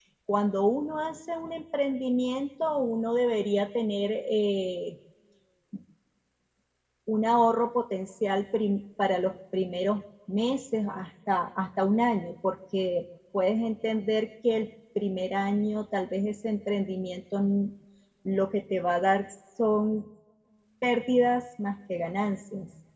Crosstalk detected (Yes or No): No